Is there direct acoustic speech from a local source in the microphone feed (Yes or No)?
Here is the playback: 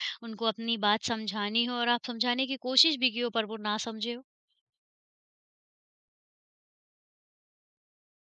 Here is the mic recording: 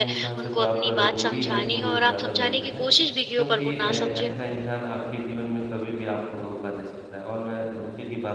Yes